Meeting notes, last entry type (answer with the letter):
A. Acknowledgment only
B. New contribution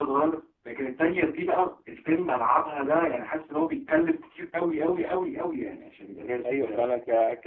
B